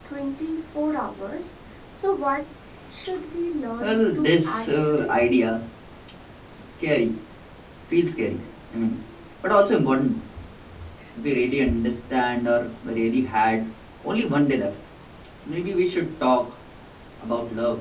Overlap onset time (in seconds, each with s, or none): 3.8 s